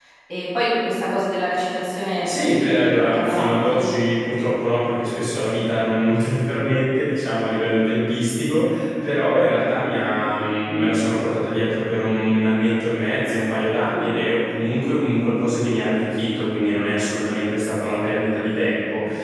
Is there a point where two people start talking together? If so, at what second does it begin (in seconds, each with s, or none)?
2.2 s